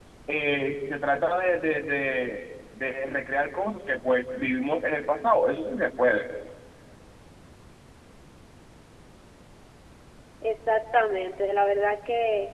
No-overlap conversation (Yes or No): Yes